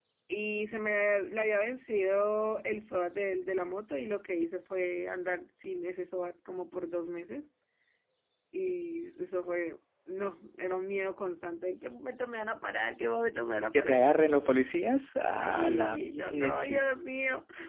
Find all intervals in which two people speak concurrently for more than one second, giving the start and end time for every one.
15.4-16.8

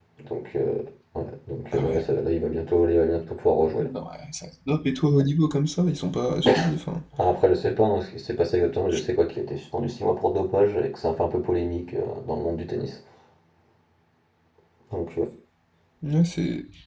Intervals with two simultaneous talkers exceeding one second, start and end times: none

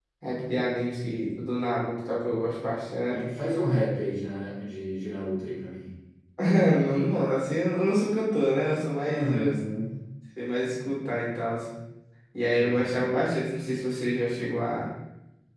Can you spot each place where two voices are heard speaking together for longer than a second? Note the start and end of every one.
none

